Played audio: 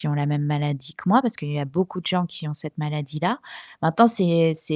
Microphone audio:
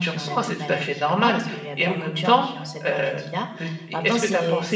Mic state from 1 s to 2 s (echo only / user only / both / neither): both